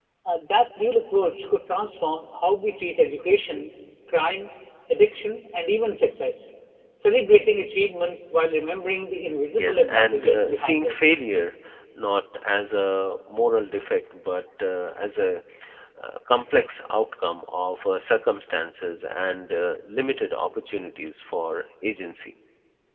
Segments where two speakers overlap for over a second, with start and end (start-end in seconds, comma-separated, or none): 9.5-11.0